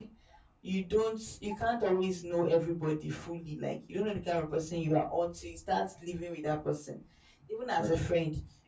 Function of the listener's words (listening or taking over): listening